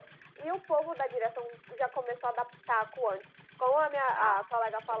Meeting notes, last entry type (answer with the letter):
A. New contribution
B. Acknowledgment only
B